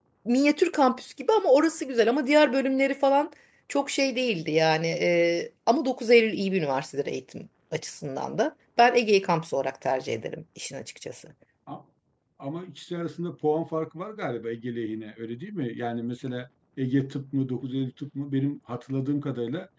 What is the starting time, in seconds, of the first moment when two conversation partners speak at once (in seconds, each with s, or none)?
none